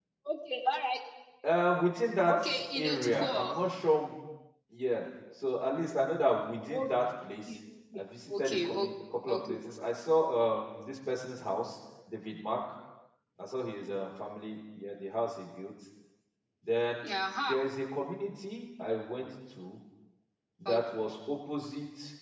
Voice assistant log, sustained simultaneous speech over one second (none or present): present